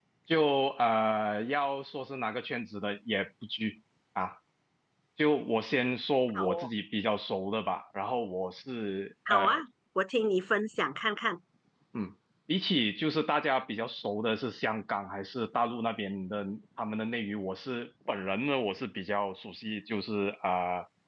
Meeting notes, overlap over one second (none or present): none